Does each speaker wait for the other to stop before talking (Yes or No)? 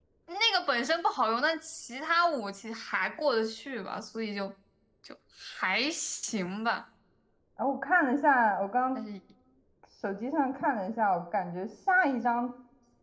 Yes